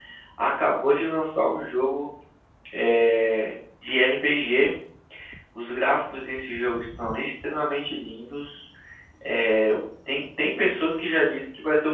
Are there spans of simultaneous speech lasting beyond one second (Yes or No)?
No